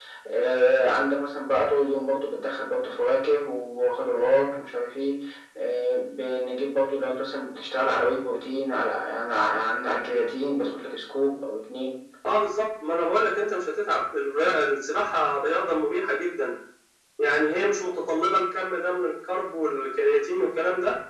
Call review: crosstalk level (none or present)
none